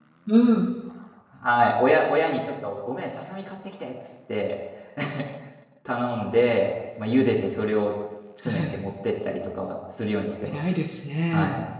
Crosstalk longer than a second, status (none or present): none